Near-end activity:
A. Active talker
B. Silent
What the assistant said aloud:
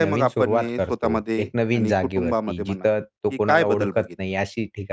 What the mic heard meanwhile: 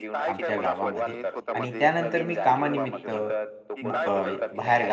A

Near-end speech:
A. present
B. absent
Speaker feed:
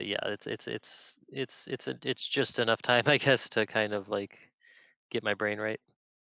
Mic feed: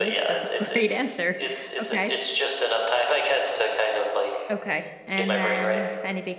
A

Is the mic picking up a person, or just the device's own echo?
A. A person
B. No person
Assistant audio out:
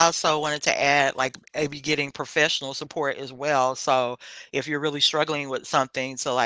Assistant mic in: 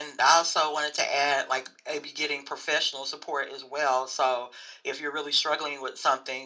B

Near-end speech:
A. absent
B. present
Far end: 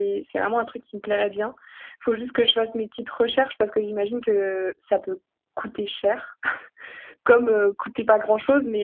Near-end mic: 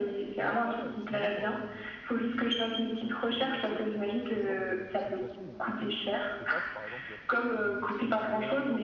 B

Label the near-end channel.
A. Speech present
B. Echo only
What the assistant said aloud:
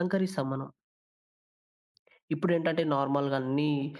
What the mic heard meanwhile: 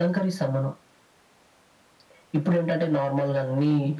B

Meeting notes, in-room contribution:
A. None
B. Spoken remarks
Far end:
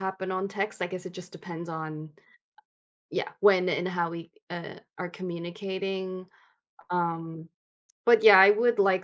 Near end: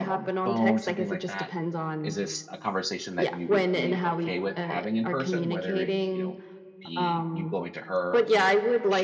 B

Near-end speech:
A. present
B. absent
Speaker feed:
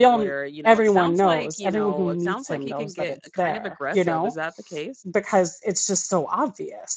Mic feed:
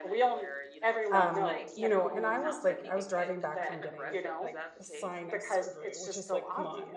A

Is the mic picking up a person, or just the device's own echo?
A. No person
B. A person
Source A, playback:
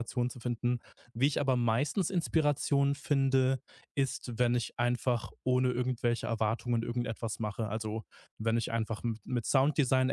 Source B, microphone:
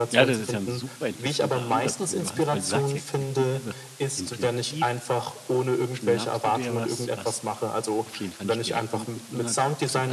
B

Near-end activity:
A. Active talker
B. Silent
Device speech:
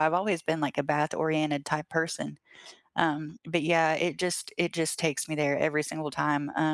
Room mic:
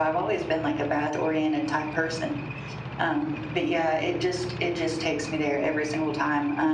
B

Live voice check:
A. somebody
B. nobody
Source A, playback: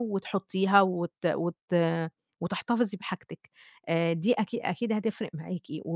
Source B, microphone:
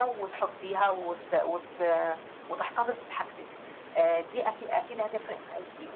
B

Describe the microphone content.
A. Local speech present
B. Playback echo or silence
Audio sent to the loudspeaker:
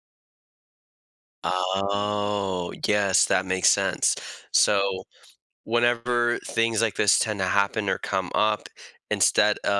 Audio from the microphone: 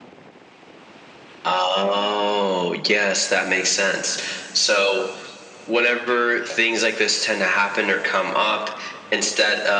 B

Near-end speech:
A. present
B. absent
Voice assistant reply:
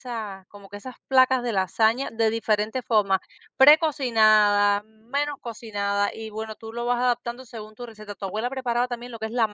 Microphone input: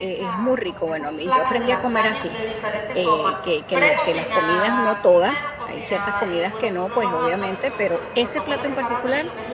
A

